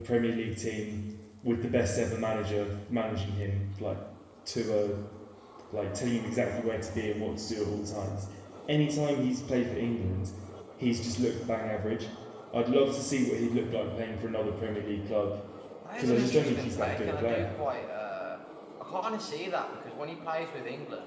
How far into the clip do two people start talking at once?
16 s

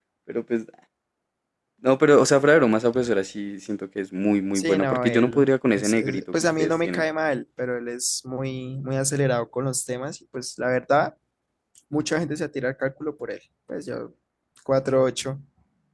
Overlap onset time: 5 s

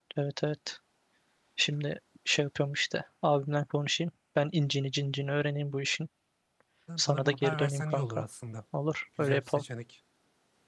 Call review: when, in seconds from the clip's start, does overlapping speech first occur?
7 s

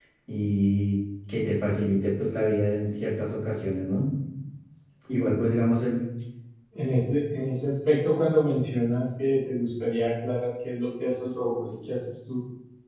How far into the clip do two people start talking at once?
none

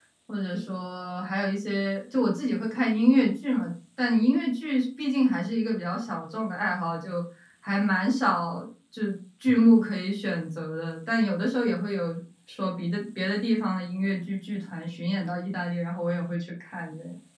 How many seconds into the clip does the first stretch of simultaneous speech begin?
none

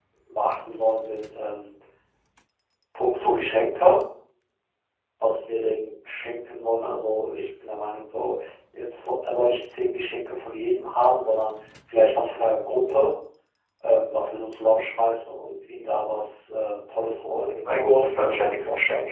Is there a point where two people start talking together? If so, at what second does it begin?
17 s

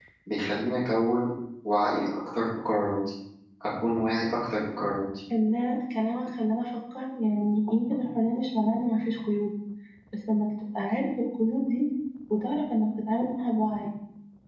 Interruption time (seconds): none

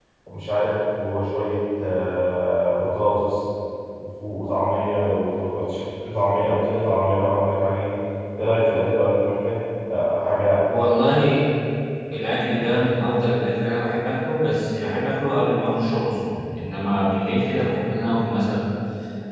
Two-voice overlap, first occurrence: none

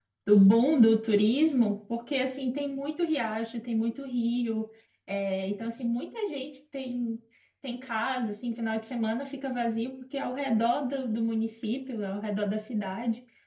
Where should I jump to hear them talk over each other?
none

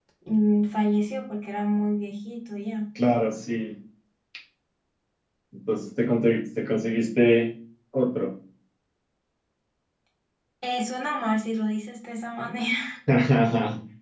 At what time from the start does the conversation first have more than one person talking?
none

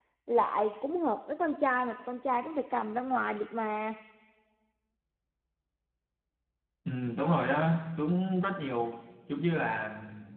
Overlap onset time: none

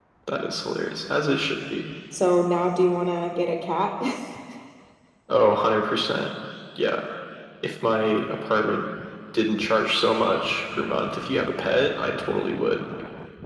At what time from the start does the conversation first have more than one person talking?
none

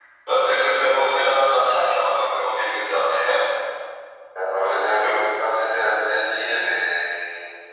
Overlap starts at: none

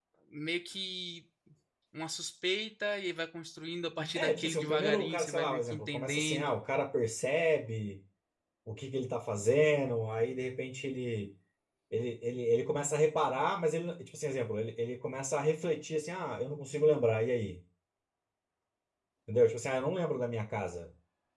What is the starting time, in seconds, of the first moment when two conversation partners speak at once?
4 s

